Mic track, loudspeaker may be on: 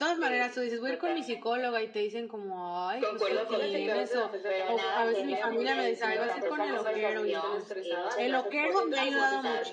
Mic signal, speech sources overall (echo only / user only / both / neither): both